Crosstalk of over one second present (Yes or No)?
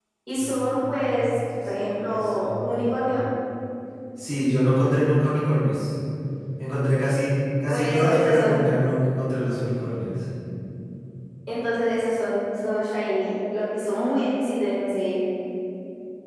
Yes